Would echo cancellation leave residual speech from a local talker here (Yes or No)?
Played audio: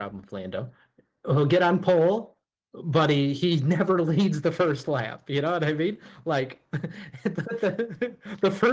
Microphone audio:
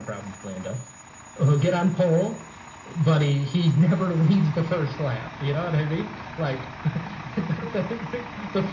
No